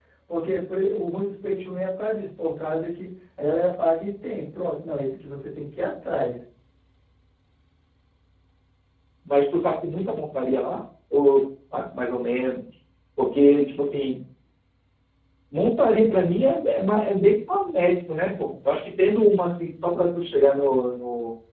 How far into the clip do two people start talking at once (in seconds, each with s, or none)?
none